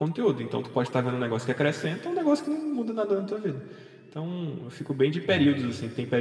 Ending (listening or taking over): listening